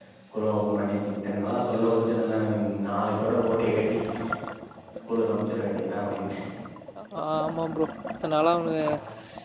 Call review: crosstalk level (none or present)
none